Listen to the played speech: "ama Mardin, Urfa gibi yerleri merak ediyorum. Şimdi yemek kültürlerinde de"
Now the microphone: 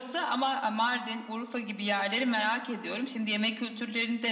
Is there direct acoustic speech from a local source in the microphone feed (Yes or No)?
No